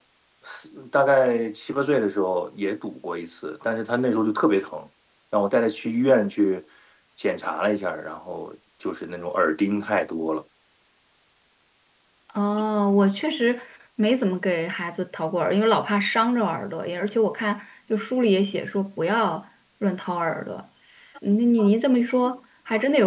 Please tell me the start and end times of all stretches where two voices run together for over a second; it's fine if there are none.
none

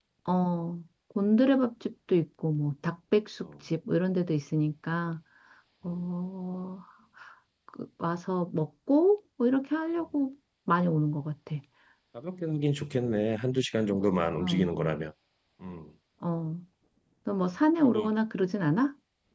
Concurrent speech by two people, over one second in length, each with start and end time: none

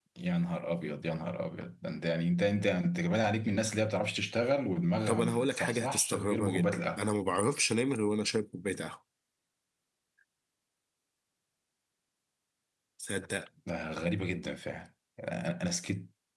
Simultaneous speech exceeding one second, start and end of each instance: 5.1-7.0

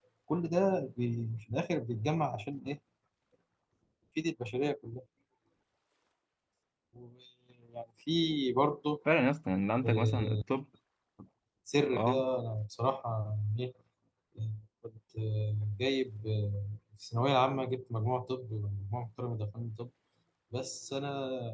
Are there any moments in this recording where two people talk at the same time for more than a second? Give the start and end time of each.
none

